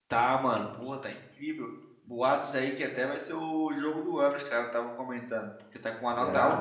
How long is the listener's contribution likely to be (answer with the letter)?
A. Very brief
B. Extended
A